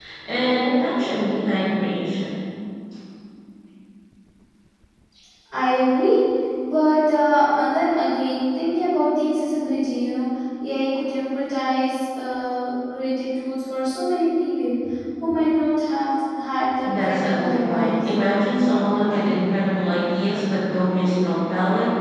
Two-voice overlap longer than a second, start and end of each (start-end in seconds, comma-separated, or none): 16.8-18.0